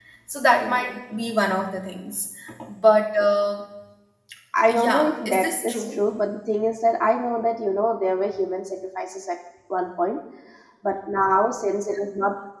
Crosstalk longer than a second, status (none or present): present